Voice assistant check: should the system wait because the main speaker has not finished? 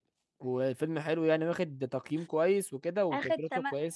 No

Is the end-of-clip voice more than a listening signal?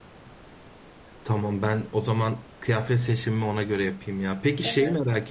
No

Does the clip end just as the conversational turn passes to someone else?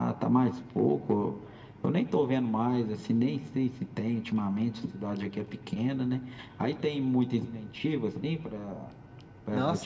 Yes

